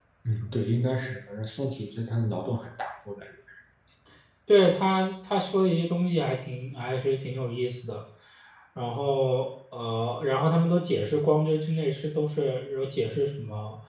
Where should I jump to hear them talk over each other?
none

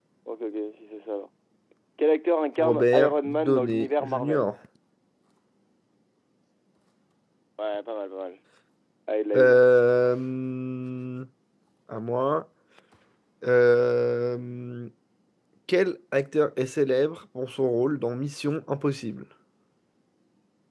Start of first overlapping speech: 2.6 s

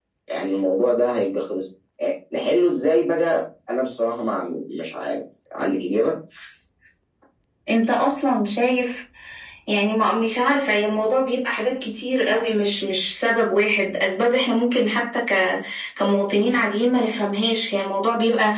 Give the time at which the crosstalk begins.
none

